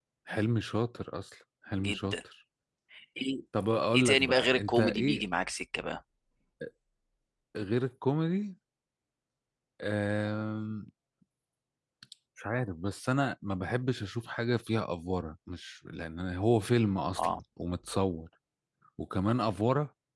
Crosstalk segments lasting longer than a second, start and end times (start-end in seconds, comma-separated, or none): 3.9-5.2